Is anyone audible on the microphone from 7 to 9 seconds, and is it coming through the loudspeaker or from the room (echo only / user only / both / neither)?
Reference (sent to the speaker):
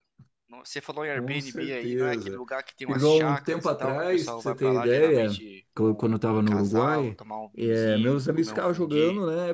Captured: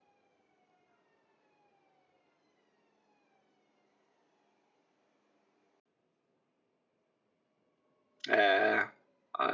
user only